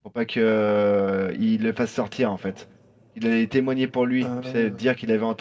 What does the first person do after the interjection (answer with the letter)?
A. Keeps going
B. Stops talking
A